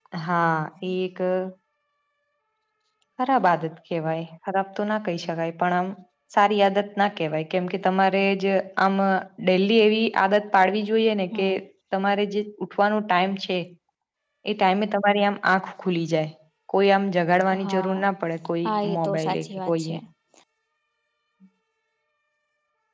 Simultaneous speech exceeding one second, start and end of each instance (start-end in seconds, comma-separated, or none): 18.6-19.9